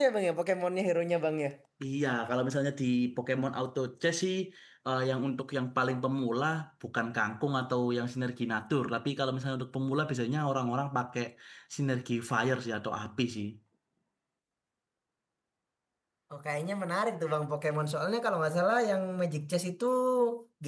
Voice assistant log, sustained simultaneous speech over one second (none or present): none